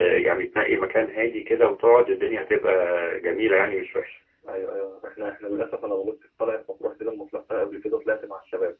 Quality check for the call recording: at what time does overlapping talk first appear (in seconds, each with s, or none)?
none